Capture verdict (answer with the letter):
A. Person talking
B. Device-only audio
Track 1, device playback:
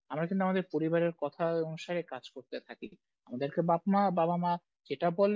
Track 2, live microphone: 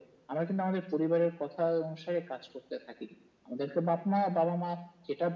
B